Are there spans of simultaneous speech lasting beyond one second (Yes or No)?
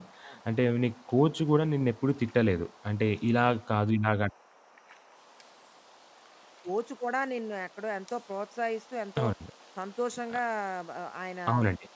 No